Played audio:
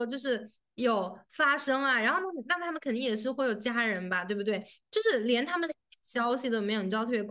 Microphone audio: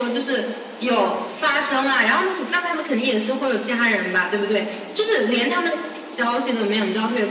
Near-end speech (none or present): none